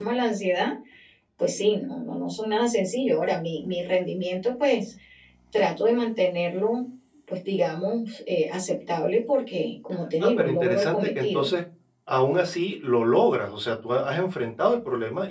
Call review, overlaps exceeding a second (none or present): present